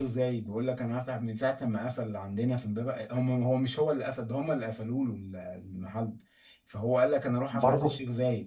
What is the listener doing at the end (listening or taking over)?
listening